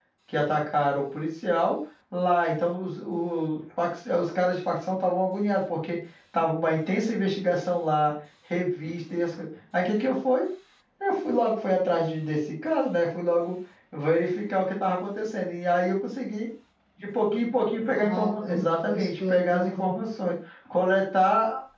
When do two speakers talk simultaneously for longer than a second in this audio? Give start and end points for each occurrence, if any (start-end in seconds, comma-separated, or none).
17.9-19.9